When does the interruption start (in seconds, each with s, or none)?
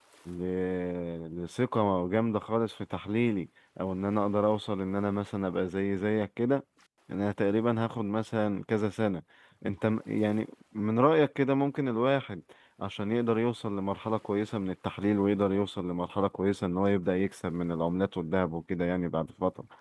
none